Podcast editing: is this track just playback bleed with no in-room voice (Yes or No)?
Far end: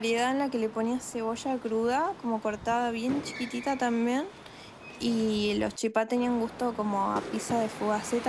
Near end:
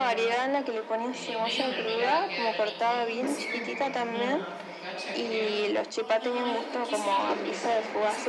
No